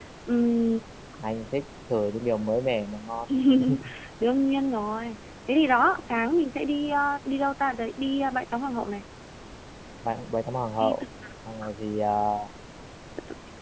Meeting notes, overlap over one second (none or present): none